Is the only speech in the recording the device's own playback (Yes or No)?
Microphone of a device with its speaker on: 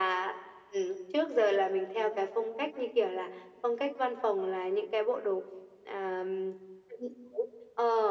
Yes